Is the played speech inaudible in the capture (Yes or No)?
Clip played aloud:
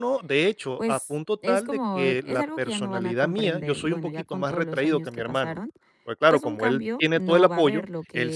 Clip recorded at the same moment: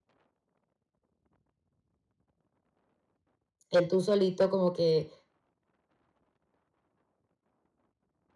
Yes